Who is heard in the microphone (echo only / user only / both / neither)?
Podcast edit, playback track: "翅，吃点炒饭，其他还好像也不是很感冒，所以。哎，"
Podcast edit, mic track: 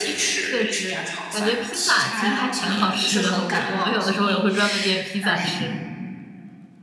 both